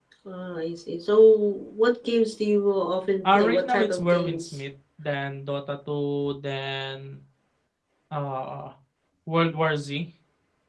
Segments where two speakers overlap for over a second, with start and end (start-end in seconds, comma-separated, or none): 3.2-4.6